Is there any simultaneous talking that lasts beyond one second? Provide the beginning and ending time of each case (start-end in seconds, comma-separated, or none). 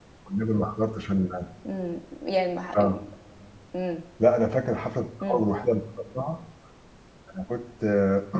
none